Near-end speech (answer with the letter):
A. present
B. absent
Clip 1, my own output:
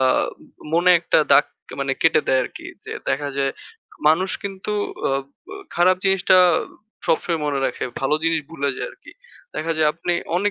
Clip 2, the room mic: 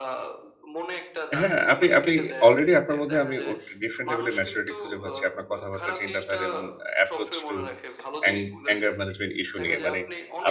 A